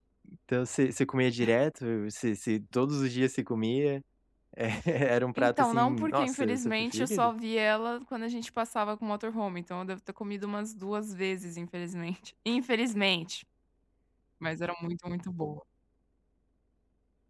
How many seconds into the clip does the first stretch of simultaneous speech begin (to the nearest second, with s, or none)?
5 s